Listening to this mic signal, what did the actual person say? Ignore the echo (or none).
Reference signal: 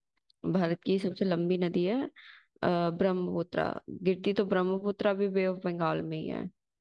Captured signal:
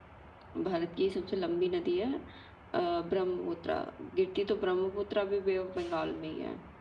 none